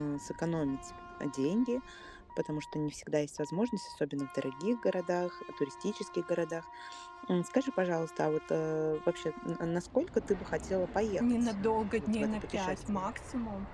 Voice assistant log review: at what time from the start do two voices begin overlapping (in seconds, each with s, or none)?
11.2 s